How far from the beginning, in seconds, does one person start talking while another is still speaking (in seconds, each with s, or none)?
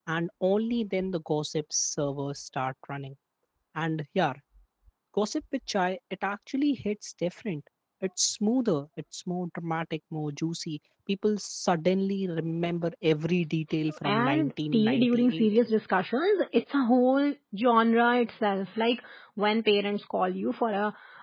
13.8 s